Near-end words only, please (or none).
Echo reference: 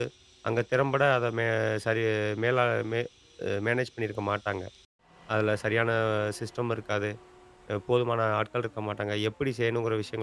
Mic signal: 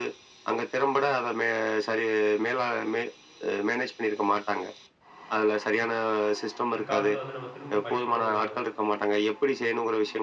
பிற்காலத்தில வந்து நம்ம திரும்ப படிக்கணும்னு நம்ம